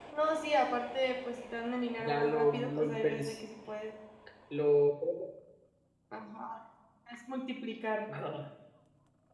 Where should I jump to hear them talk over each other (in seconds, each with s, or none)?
2.0 s